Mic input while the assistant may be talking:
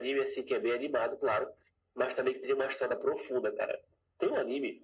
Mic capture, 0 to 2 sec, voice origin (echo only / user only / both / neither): echo only